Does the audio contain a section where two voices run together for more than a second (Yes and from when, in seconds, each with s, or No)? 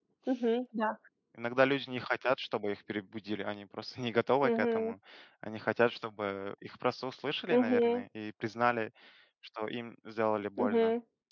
No